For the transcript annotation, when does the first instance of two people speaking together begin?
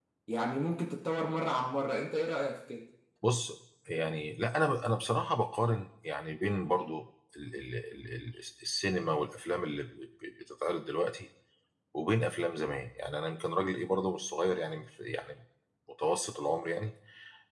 none

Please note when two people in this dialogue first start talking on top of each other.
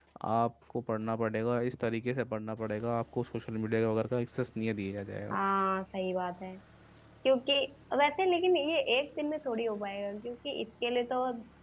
none

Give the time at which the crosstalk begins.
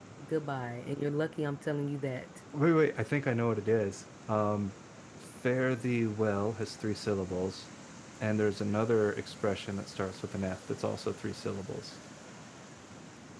none

